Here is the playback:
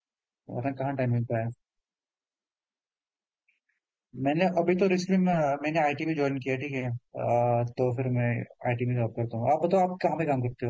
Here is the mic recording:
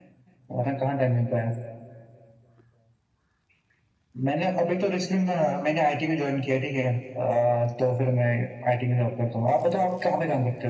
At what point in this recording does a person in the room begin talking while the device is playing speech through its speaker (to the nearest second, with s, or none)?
none